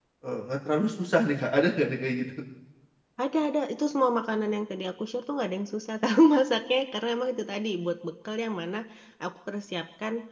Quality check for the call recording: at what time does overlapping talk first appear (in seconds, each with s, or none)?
none